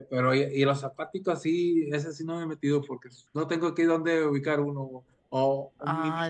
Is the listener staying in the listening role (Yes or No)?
Yes